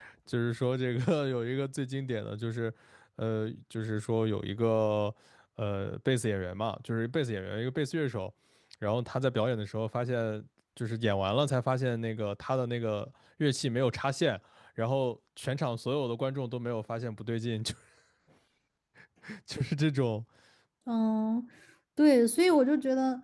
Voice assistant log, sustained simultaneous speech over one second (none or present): none